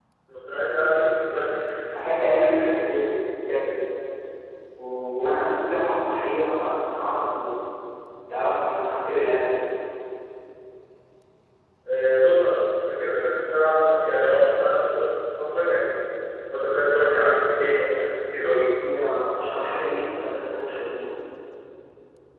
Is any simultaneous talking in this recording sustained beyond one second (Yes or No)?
No